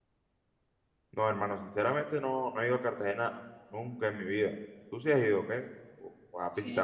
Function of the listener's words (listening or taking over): taking over